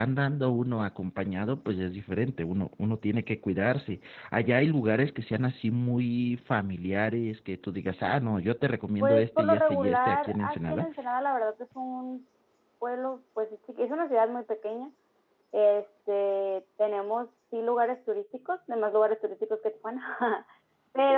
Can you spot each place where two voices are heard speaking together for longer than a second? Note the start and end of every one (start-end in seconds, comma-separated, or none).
9.0-10.9